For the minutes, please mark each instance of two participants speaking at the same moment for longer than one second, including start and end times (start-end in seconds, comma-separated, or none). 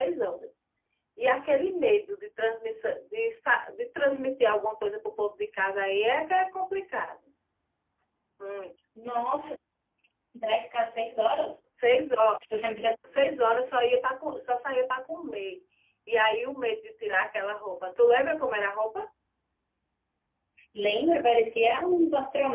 none